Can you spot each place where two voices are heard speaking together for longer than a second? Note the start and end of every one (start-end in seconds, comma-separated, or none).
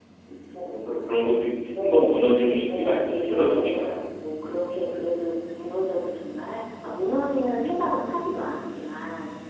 2.7-4.0